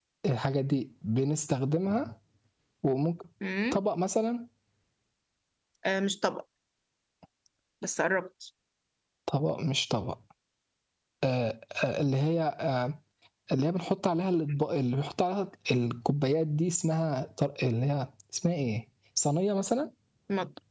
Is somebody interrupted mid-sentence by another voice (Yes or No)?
No